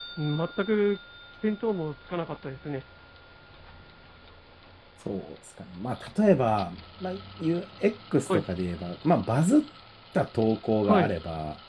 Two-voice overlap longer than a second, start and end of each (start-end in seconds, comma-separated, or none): none